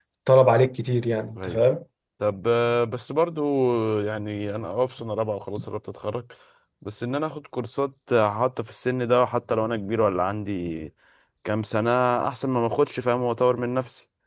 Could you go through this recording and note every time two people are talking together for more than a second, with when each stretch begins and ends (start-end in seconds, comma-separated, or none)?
none